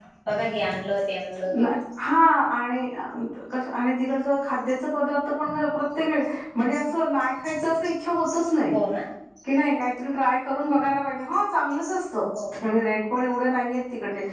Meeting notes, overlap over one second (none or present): none